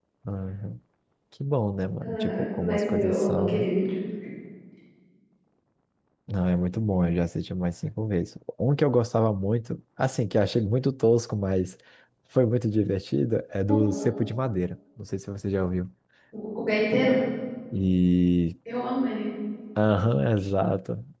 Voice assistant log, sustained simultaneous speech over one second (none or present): present